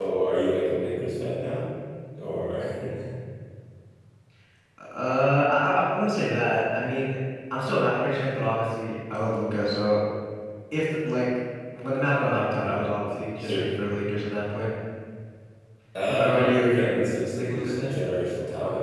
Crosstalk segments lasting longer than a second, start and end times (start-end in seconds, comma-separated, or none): 16.1-17.9